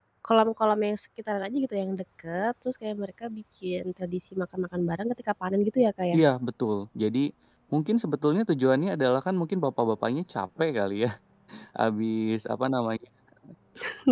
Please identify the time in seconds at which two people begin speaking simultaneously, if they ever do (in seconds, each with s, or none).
none